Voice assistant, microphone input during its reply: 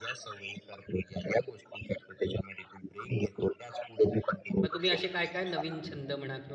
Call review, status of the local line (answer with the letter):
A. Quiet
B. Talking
B